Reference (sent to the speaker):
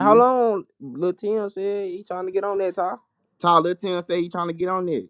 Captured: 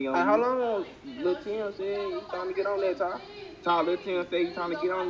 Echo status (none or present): present